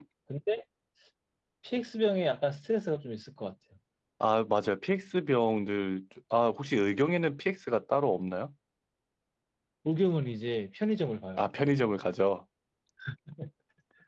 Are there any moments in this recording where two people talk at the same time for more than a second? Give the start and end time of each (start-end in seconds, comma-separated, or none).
none